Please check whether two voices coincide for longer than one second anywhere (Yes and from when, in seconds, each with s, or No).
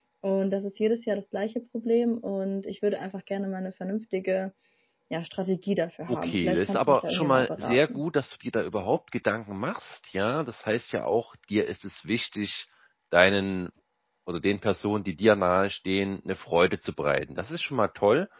Yes, from 6.1 s